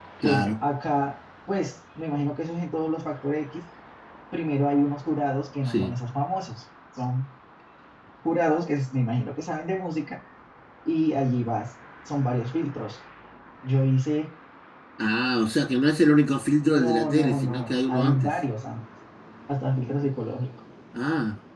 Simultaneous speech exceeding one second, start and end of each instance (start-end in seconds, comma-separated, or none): 16.6-18.3